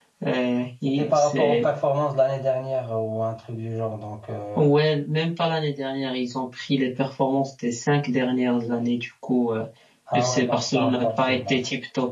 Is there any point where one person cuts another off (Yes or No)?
Yes